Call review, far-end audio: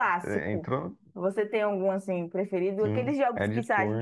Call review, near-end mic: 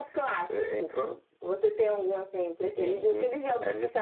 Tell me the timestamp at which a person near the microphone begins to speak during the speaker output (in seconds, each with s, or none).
2.7 s